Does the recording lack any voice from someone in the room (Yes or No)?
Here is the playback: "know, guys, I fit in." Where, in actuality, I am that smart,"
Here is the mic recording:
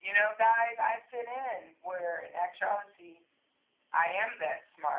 Yes